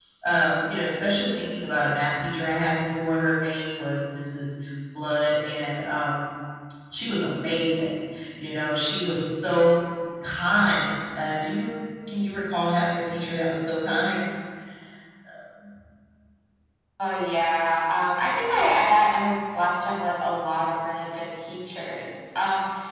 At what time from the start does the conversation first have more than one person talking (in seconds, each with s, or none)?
none